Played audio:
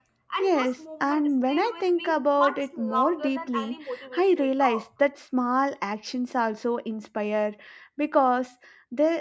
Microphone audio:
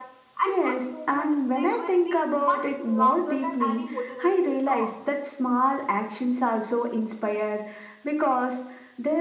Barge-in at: none

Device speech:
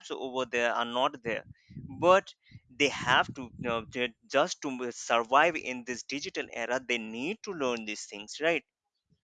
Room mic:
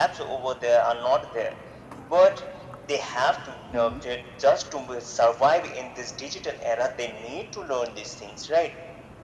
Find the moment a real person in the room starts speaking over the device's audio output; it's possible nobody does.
3.7 s

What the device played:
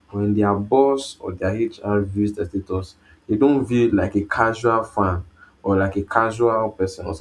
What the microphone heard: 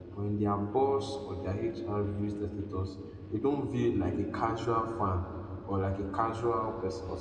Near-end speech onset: none

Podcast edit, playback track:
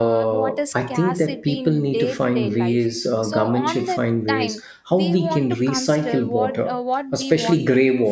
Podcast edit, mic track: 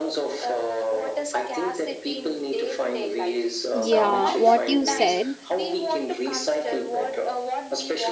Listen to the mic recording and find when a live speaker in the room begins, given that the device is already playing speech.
3.7 s

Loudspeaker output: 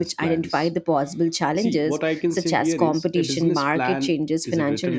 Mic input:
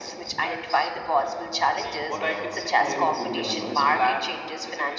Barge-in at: 2.1 s

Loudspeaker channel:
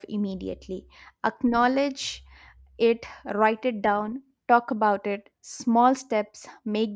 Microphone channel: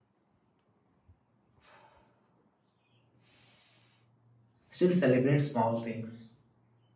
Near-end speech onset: 4.7 s

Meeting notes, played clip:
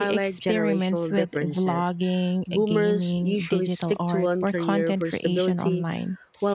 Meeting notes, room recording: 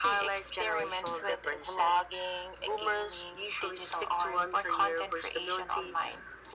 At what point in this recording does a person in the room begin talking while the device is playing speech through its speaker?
none

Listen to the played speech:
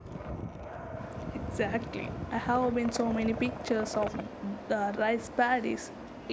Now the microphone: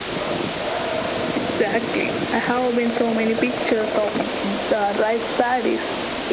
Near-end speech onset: none

